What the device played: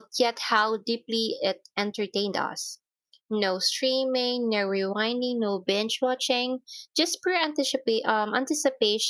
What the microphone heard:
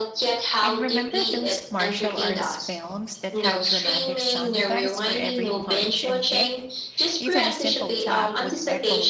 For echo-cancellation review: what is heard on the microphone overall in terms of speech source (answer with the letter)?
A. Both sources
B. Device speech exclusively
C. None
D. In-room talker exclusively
A